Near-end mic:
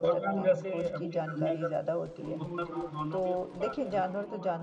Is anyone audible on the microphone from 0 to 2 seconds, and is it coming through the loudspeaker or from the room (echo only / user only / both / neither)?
both